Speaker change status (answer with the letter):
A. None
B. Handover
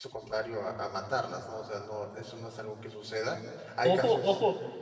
B